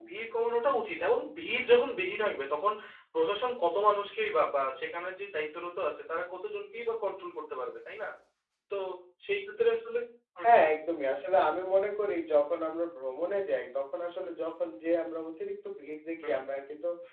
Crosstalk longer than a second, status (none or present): none